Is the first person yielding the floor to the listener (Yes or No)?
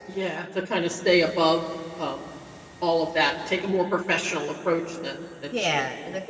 Yes